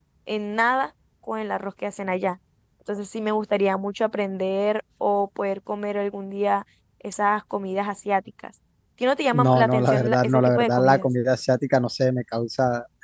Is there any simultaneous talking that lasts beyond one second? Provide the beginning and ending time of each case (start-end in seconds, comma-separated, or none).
9.3-11.1